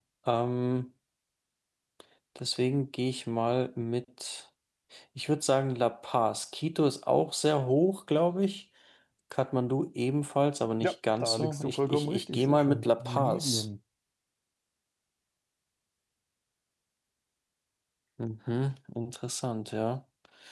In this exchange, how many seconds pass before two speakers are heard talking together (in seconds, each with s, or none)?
10.8 s